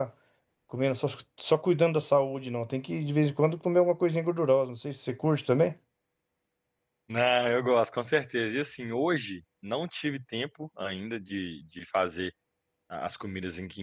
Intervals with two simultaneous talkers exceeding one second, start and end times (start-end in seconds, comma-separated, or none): none